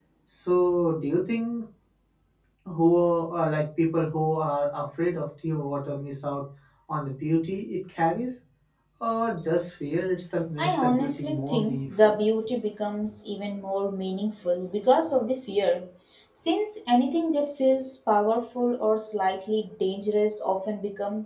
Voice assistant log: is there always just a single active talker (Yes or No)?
No